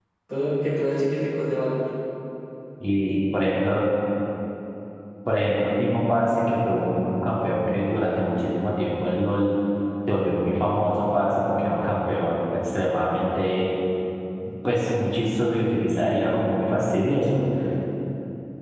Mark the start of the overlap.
none

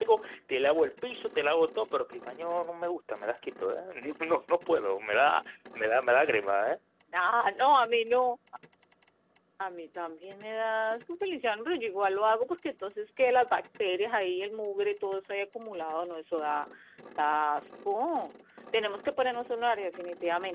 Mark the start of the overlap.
none

